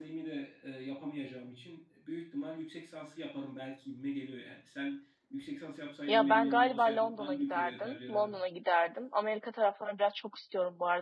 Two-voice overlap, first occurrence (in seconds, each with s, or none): 6.1 s